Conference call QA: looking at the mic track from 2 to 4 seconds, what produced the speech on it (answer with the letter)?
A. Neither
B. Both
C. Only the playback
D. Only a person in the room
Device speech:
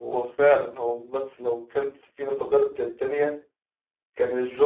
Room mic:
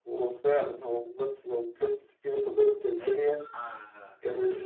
B